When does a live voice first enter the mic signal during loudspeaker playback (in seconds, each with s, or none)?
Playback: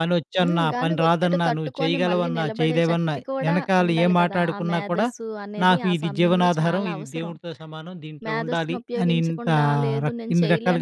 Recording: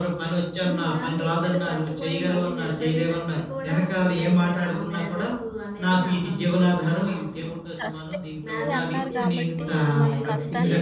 7.1 s